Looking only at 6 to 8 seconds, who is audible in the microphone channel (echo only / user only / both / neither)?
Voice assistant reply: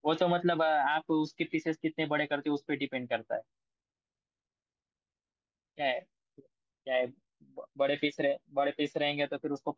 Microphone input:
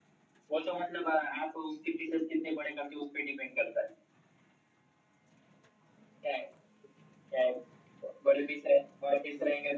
echo only